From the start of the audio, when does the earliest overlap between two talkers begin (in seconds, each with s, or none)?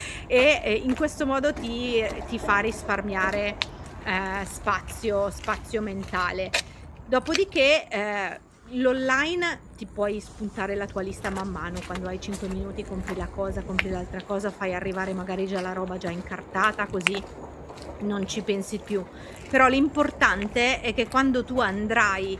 none